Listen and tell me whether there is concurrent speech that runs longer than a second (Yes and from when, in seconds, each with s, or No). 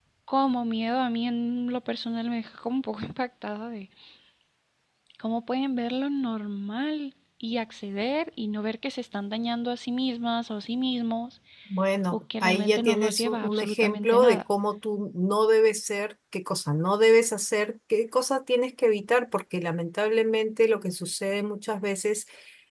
Yes, from 12.1 s